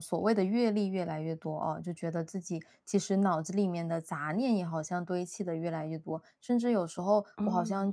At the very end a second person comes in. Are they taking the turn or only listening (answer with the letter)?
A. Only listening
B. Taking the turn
A